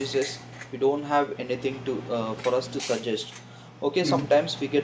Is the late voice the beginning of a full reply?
No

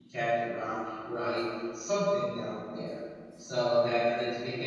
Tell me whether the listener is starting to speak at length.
No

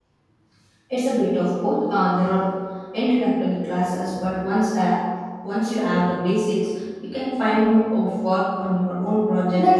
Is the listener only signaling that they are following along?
No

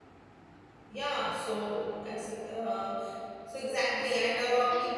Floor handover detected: No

